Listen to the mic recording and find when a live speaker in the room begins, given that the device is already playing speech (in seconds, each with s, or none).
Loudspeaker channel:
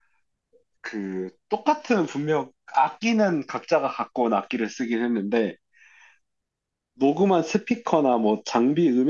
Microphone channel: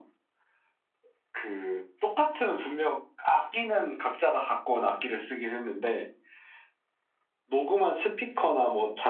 none